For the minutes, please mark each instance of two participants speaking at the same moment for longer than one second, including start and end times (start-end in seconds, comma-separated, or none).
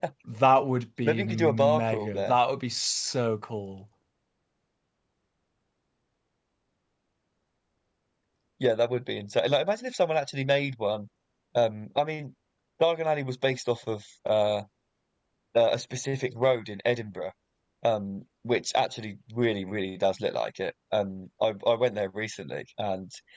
1.0-2.3